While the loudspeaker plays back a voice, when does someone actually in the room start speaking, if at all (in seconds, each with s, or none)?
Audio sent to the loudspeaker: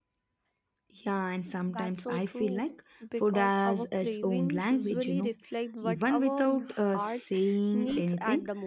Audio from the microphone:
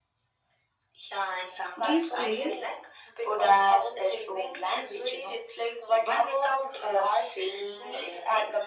1.7 s